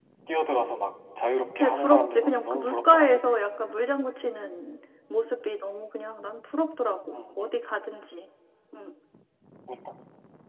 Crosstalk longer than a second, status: present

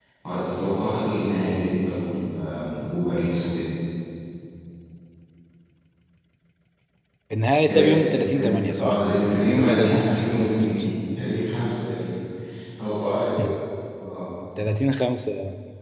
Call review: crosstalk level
present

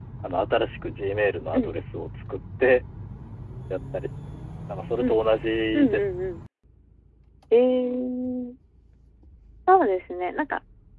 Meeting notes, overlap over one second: none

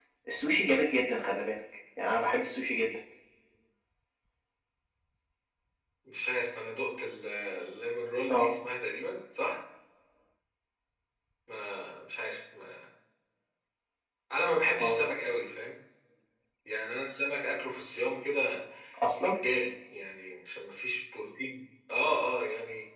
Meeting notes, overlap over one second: none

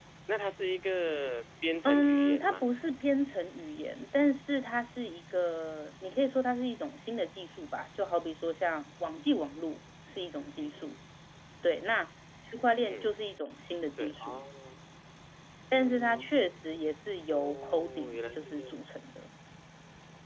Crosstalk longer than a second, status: present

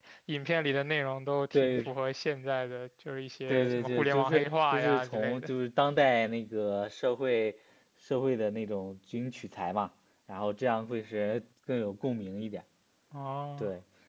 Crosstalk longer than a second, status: present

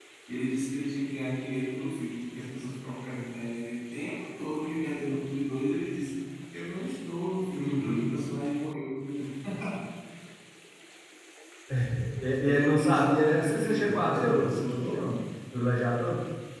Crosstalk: present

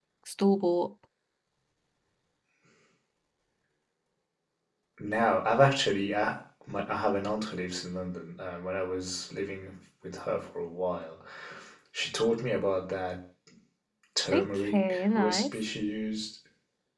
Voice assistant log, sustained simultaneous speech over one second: present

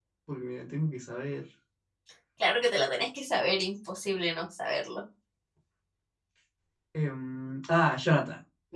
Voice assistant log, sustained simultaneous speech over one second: none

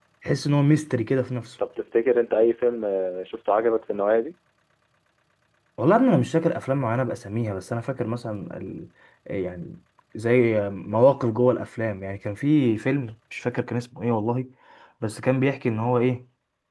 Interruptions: none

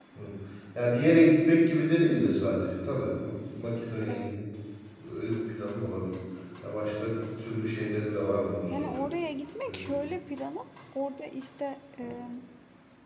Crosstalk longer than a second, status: none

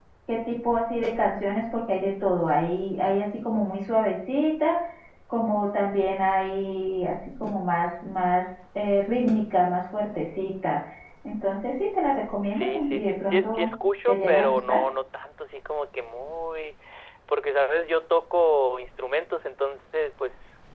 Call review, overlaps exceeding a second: present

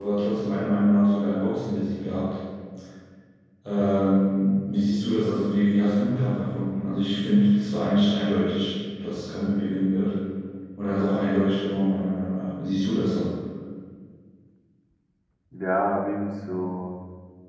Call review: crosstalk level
none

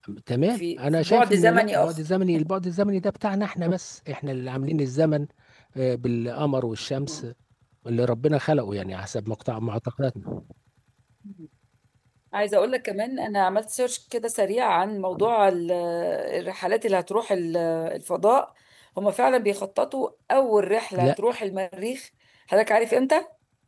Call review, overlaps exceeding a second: present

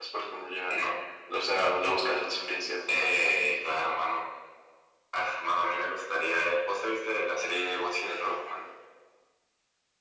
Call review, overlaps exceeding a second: none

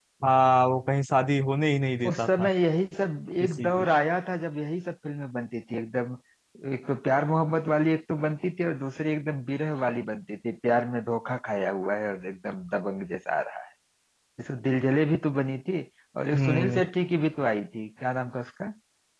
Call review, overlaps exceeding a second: none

